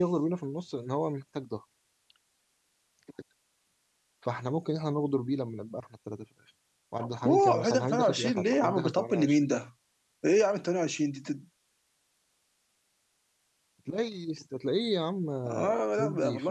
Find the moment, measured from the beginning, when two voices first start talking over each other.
7.2 s

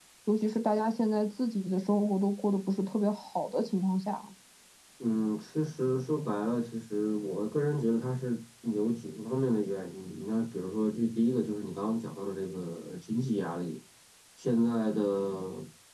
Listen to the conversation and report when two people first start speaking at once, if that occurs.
none

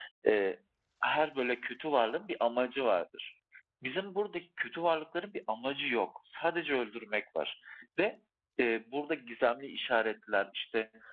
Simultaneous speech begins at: none

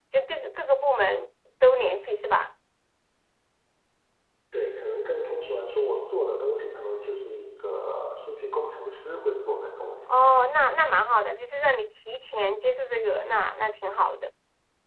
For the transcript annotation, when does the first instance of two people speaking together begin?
none

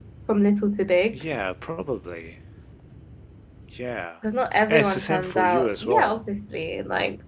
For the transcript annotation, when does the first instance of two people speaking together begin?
4.7 s

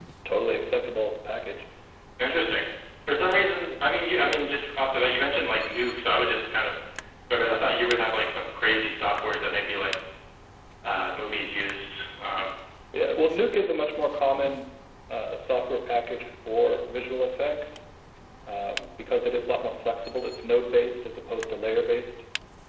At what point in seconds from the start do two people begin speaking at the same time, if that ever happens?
none

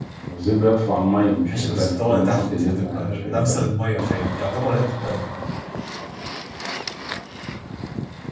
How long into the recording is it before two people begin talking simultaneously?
1.4 s

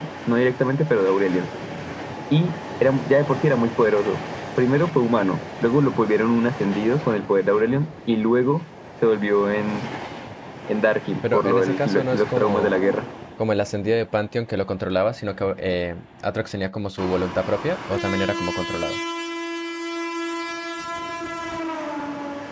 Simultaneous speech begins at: 11.3 s

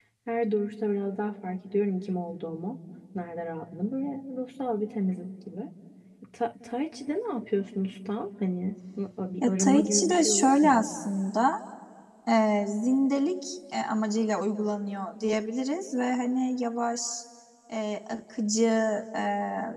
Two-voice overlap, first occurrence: 9.4 s

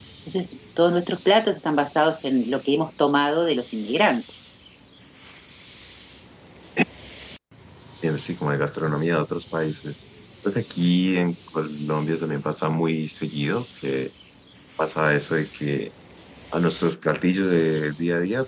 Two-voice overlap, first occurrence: none

